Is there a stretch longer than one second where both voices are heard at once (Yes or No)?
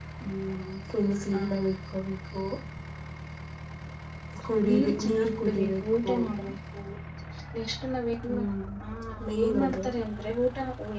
Yes